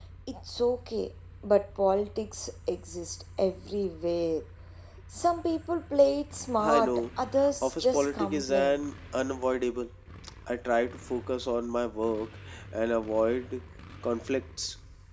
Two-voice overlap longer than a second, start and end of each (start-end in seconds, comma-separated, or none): 7.6-8.8